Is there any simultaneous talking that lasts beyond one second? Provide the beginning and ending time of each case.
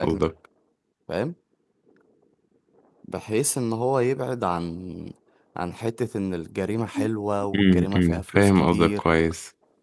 7.5-9.0

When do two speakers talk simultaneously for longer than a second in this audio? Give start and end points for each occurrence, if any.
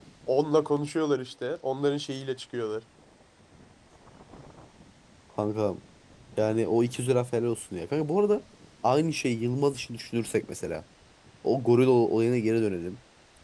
none

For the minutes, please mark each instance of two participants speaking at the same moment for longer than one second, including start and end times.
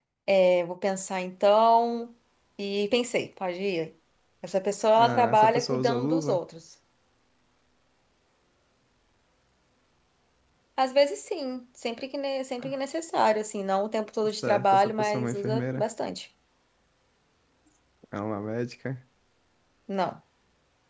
5.0-6.4, 14.3-15.8

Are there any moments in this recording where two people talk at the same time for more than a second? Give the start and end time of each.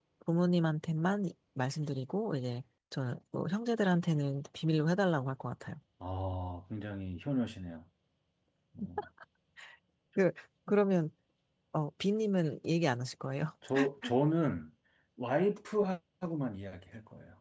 none

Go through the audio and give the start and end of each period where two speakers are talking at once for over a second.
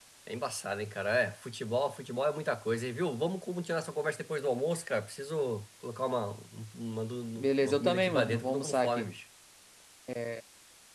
7.4-9.1

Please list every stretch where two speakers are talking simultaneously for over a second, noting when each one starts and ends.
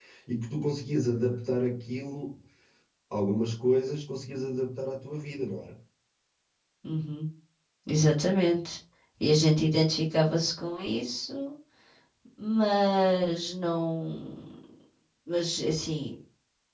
none

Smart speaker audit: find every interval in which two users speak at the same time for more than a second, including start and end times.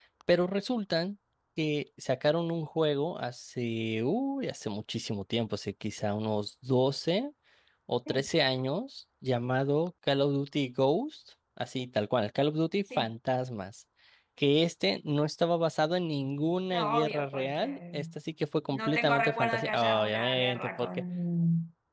16.7-17.9, 18.7-20.9

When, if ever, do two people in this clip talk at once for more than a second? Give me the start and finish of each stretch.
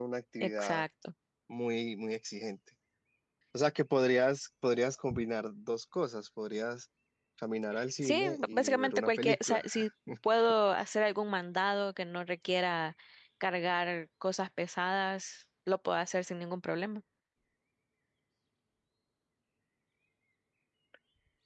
8.0-9.6

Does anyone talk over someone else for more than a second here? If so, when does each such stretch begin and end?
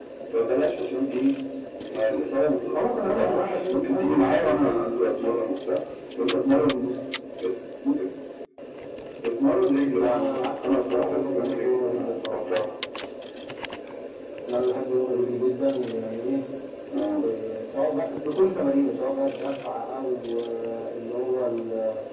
2.7-5.2, 9.9-12.4

